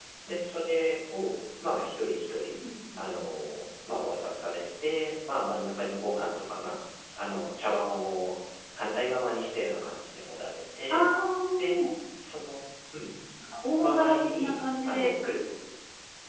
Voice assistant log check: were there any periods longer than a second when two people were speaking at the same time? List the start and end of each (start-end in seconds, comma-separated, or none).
13.8-15.1